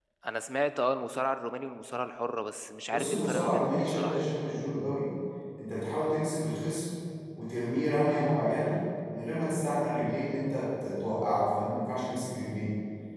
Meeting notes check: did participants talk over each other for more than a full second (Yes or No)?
Yes